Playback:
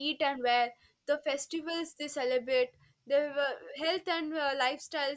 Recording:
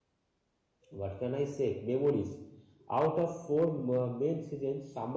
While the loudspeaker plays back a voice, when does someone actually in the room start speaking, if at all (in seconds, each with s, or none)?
0.9 s